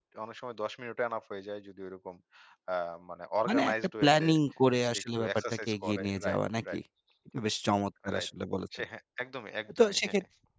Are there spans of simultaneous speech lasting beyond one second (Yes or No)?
Yes